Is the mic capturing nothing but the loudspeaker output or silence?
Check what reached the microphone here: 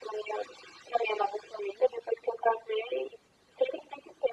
Yes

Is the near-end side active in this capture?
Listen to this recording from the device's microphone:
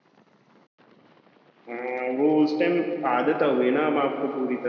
Yes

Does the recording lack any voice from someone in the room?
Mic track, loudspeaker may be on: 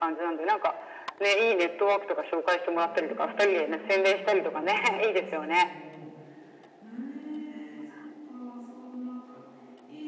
No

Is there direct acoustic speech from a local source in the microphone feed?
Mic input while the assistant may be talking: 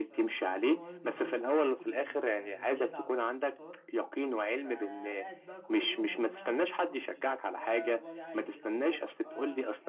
Yes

